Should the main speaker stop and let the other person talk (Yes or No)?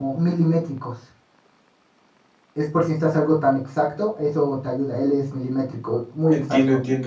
Yes